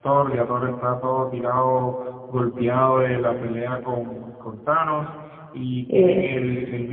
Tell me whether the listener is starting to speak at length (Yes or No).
No